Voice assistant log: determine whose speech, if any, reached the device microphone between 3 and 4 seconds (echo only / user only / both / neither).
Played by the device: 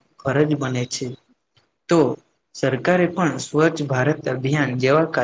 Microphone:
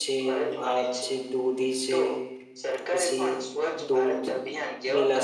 both